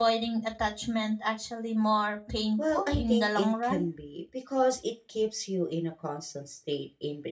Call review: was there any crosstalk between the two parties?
Yes, from 2.6 s

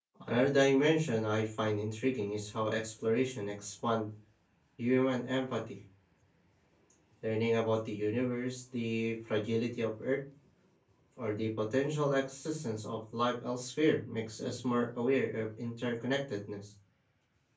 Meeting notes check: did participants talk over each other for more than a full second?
No

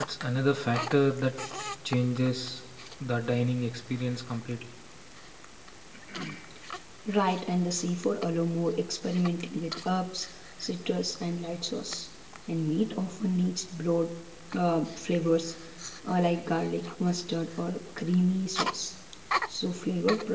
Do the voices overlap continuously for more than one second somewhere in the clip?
No

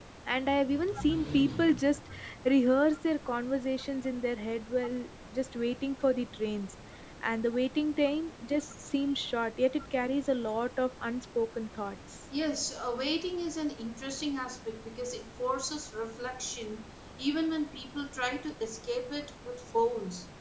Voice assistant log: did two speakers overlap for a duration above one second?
No

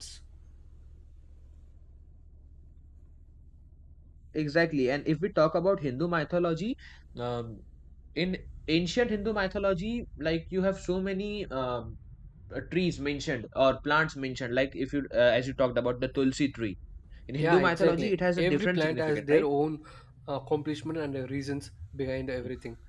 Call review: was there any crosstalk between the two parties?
Yes, from 17.4 s

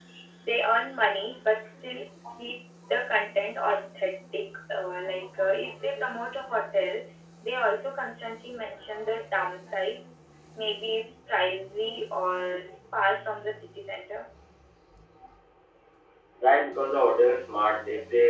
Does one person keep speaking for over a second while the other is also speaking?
No

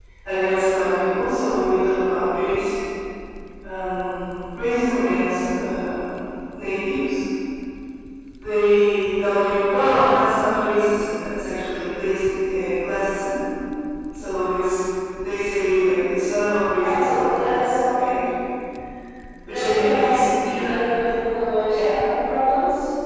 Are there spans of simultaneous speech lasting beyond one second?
Yes, from 16.8 s

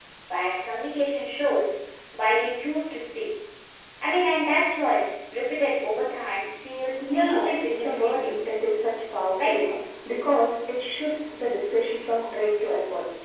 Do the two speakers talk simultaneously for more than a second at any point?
Yes, from 6.8 s

